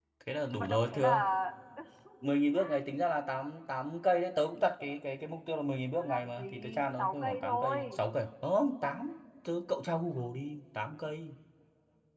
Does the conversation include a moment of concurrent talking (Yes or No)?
Yes